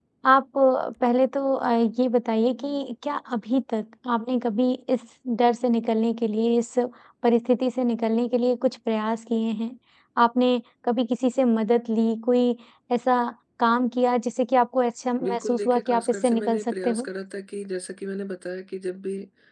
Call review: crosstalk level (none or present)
present